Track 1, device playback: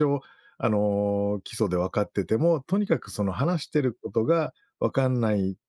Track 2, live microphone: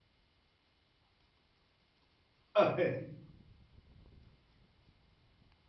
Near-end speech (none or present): present